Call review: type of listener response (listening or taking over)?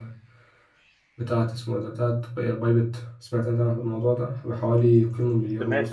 taking over